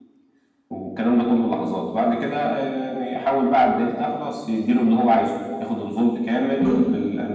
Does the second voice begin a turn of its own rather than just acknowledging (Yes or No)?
No